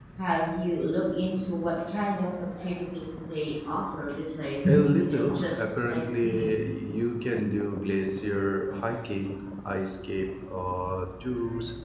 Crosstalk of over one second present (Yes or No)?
Yes